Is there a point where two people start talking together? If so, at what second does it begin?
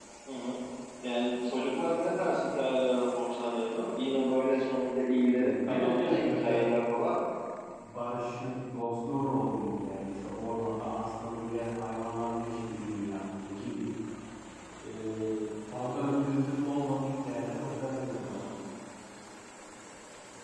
5 s

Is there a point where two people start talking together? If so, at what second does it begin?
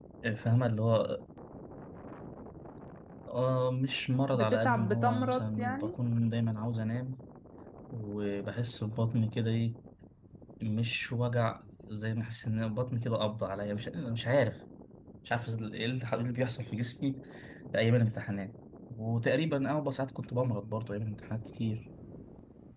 4 s

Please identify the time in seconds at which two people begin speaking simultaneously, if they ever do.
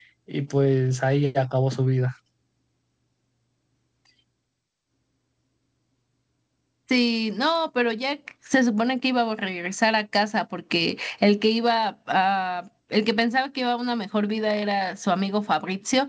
none

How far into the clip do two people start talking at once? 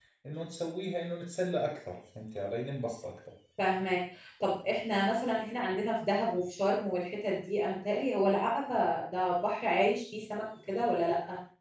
none

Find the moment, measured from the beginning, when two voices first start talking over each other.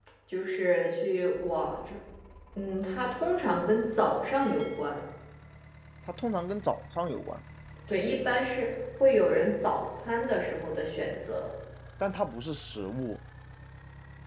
none

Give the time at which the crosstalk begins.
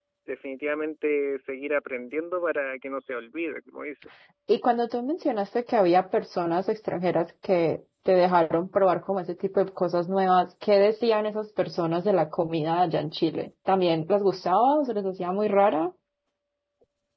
none

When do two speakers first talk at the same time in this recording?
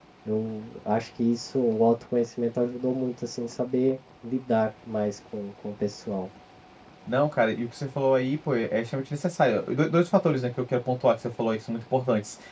none

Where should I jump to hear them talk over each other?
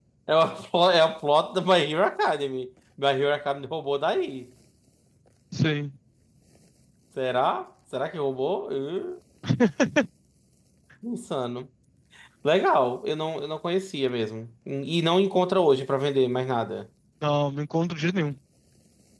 none

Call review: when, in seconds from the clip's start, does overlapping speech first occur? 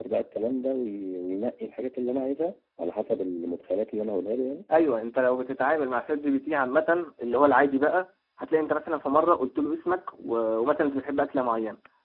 none

